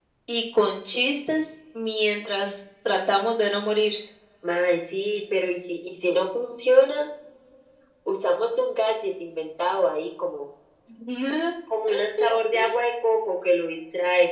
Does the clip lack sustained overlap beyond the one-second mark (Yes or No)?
Yes